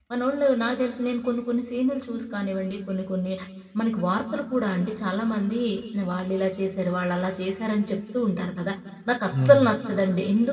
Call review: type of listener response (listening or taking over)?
listening